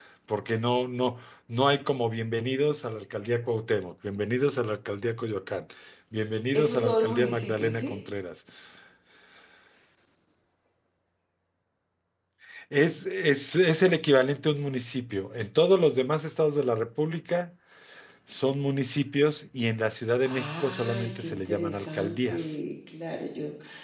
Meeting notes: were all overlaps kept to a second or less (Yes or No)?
No